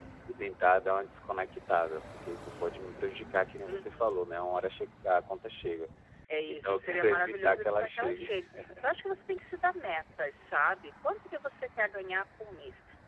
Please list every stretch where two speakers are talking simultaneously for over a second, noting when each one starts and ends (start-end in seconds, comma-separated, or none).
6.5-8.3